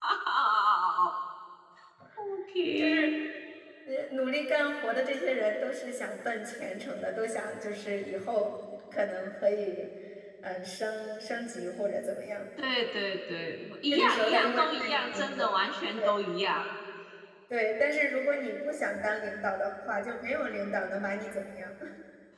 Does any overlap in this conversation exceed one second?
Yes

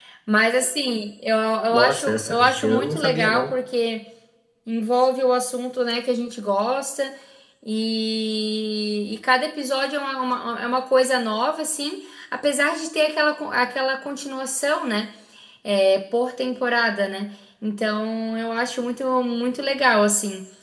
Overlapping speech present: Yes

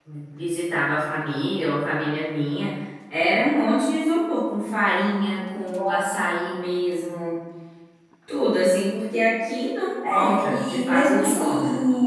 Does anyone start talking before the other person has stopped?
Yes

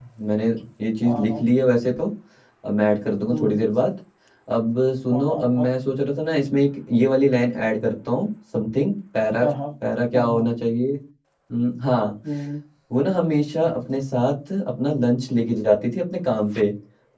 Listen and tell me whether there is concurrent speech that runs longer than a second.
No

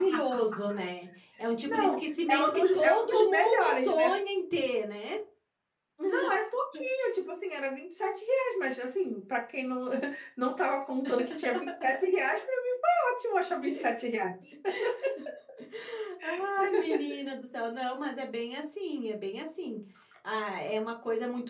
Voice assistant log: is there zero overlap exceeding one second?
No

